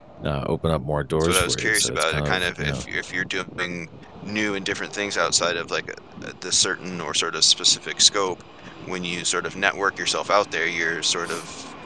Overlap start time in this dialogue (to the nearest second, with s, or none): 1 s